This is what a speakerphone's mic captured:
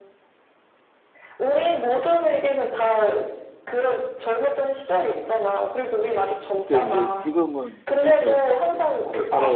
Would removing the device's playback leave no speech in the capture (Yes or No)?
No